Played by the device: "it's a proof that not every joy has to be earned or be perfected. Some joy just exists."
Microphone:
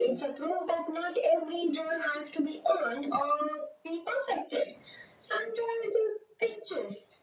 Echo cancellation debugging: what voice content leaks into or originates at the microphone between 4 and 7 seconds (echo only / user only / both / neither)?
echo only